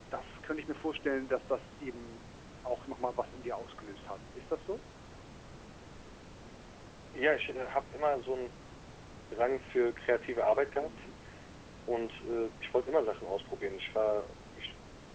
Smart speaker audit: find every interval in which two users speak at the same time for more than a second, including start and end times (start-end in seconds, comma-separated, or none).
none